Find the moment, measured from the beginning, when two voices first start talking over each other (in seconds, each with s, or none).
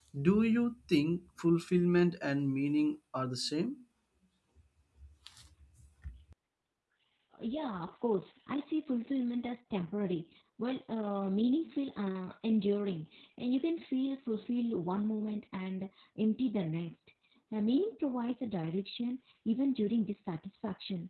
none